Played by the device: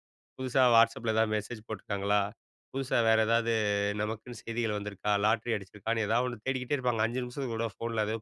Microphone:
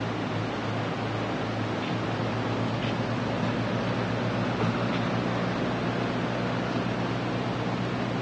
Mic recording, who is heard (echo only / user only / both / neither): neither